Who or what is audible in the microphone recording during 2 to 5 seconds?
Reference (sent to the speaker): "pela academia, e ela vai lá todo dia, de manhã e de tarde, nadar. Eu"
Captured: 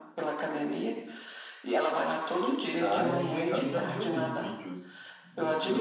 both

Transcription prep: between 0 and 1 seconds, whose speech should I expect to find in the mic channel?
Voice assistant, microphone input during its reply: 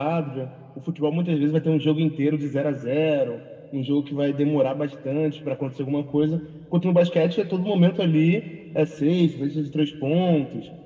echo only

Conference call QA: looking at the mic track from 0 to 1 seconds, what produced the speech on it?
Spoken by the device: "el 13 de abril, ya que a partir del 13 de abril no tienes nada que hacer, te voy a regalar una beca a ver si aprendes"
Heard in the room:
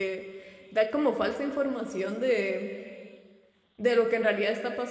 user only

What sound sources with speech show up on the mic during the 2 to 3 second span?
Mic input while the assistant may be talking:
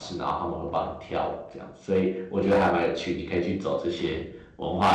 user only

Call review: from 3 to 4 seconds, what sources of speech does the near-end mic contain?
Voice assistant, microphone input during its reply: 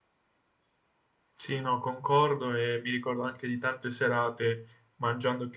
echo only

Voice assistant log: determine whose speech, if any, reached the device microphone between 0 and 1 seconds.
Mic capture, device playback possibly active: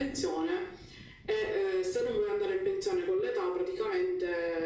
echo only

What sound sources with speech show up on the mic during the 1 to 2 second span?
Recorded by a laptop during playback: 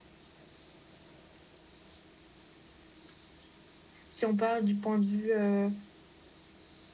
neither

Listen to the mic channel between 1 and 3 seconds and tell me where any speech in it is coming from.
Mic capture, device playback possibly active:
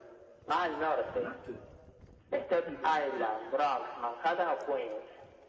both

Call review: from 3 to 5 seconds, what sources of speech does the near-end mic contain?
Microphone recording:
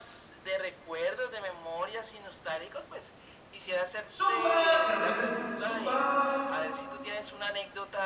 both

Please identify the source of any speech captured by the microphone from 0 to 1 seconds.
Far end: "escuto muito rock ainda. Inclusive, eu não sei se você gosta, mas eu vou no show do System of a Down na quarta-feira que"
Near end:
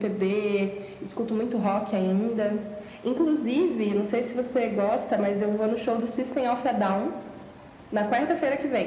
echo only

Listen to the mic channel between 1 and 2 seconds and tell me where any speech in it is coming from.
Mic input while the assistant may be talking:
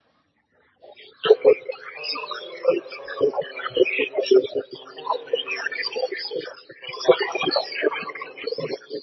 echo only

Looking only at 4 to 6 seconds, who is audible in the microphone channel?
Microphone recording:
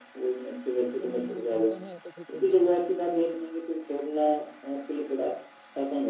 echo only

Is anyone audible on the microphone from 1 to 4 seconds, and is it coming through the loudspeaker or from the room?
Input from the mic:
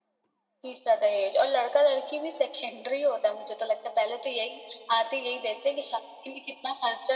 echo only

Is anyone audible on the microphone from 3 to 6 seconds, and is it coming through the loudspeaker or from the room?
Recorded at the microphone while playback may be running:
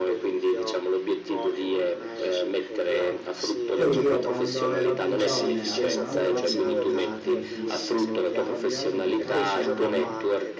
both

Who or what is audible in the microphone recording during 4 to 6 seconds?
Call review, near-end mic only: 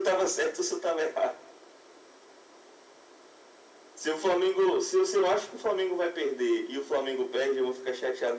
echo only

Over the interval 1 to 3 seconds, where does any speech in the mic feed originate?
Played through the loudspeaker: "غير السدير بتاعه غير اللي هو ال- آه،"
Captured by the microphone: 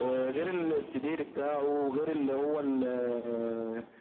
echo only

